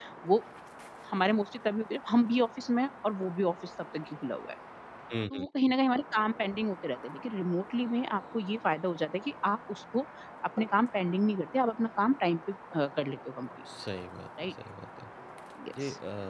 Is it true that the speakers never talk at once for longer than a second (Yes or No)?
Yes